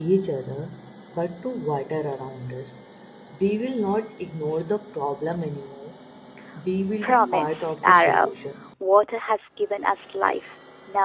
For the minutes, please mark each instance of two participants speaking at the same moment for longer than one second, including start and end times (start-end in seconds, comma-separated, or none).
7.0-8.3